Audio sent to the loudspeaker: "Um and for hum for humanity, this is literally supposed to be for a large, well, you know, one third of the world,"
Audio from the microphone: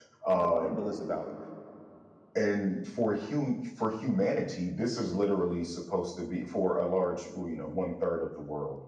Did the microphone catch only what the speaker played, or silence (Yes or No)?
No